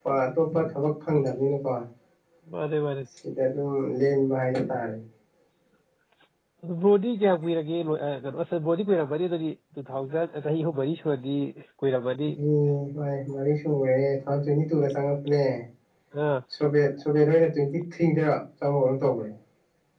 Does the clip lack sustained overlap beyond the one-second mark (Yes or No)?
Yes